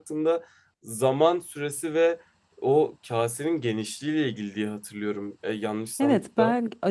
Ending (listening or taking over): taking over